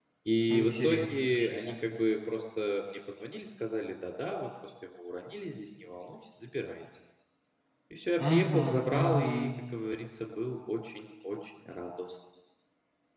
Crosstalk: present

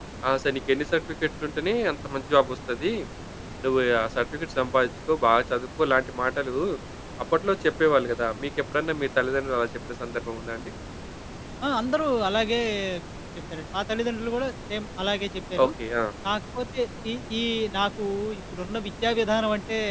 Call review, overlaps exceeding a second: none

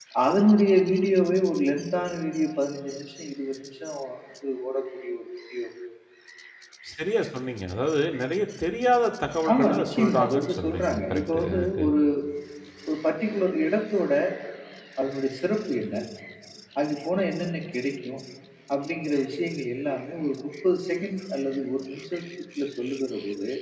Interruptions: present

